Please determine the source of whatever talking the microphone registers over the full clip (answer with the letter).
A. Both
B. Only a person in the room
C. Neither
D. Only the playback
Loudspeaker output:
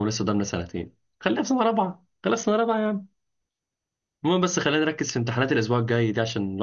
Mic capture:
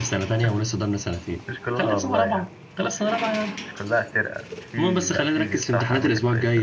A